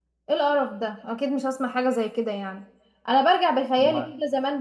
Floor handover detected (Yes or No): No